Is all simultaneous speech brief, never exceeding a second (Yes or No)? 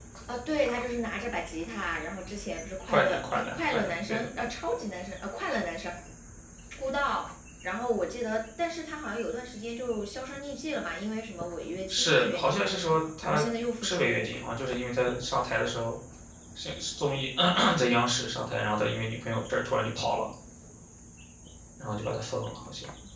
No